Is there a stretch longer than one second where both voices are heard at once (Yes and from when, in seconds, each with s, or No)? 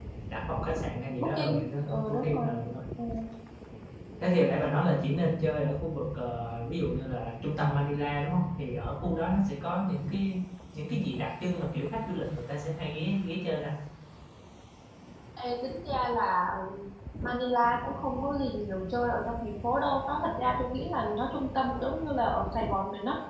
Yes, from 1.2 s